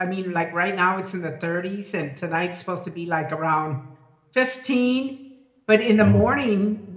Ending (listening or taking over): listening